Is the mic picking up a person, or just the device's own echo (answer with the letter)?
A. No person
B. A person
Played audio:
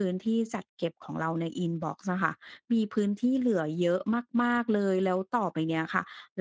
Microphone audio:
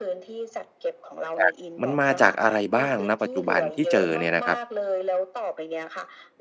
B